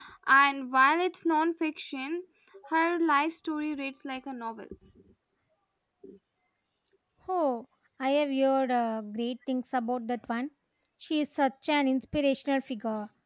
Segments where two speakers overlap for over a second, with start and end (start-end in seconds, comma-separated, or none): none